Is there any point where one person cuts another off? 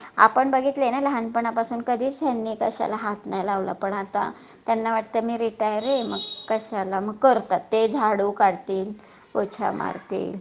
No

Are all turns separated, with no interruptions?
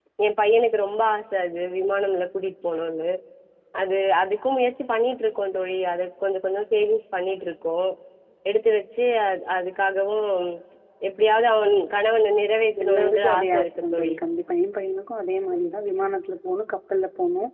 No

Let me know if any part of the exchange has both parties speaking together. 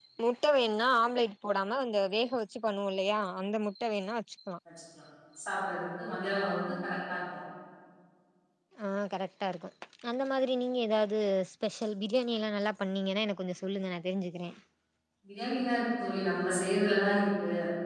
No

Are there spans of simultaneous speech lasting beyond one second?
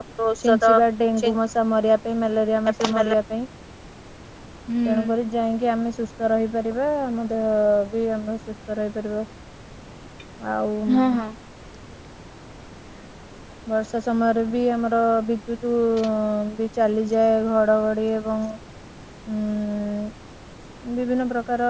No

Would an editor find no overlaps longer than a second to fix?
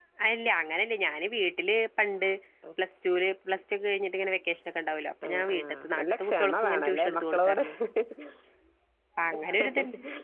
No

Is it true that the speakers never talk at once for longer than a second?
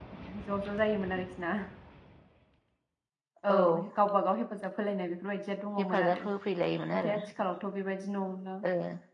Yes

